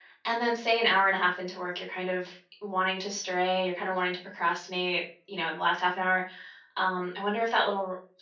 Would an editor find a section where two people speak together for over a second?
No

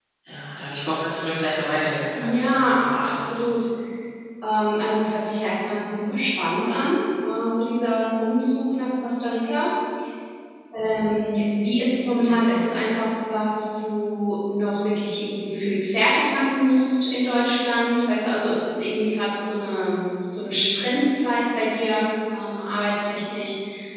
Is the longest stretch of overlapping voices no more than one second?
No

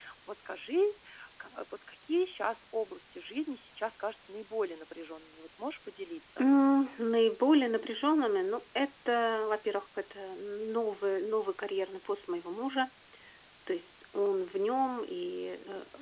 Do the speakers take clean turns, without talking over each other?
Yes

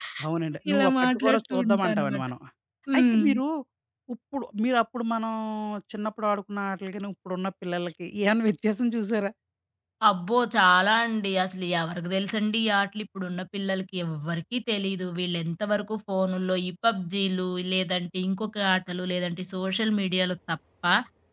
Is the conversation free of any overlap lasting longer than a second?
No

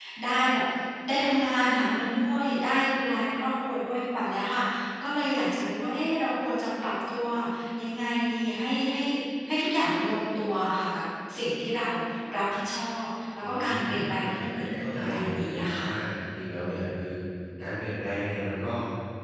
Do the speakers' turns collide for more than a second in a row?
Yes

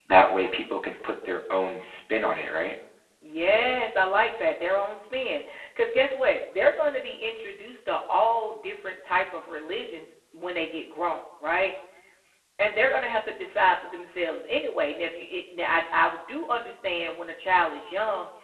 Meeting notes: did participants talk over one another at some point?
No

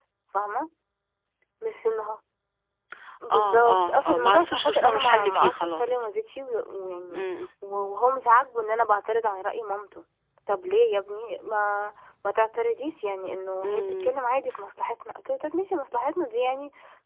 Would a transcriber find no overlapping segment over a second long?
No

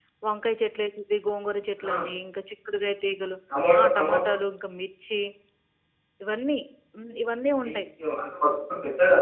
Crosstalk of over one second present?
No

